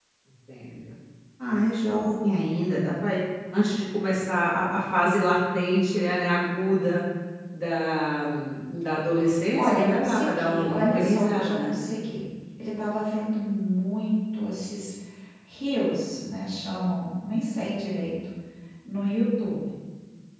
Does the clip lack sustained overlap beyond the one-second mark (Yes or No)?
No